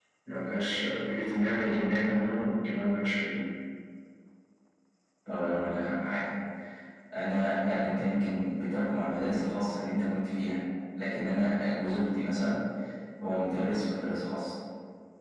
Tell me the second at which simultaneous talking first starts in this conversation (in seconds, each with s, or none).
none